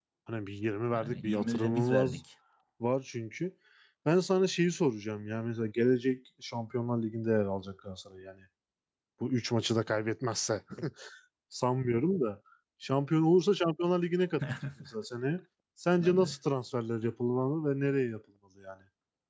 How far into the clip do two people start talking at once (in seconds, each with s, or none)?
0.9 s